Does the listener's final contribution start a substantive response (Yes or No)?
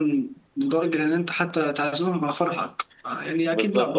No